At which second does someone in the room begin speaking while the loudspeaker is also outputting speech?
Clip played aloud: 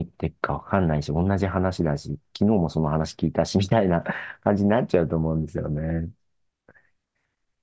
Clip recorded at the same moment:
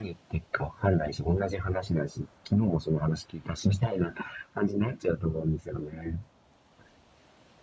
none

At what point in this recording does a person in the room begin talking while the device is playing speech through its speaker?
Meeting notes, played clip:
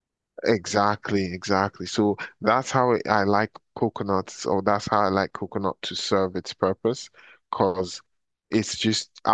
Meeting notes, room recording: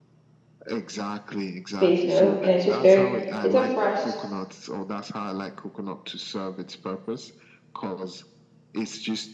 1.8 s

